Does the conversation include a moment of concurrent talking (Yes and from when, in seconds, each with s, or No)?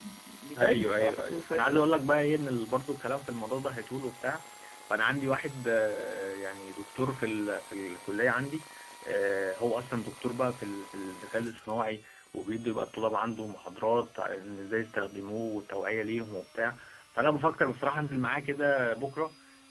Yes, from 0.6 s